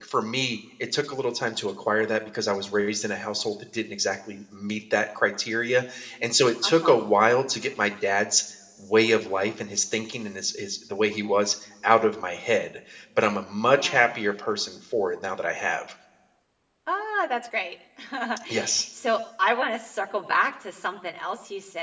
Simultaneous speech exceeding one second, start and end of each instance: none

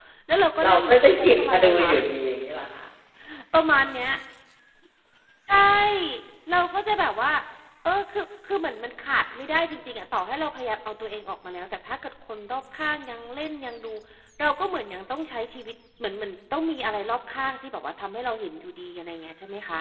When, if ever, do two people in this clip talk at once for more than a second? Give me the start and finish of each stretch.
0.6-1.9

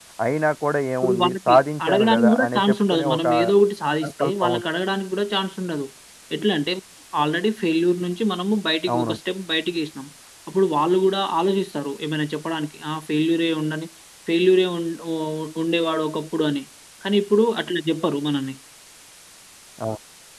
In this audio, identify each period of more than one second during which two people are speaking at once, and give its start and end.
1.0-3.2

